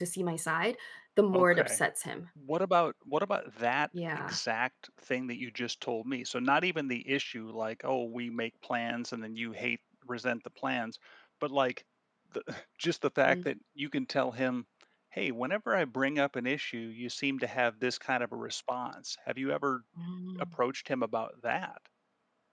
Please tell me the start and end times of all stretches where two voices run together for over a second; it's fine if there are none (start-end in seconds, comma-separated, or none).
none